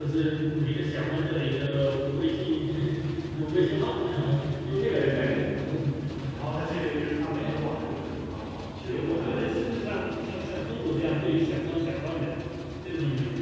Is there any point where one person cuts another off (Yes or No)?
Yes